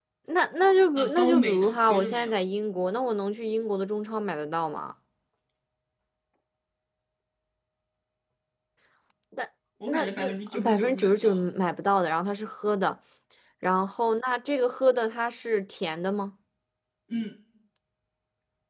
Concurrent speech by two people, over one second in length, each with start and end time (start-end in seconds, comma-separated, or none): 0.9-2.3, 9.9-11.4